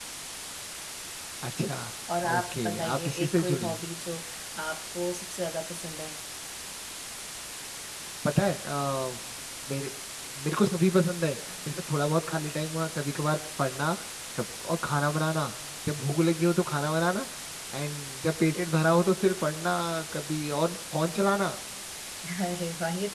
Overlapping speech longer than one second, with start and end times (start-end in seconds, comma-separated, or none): 2.3-3.8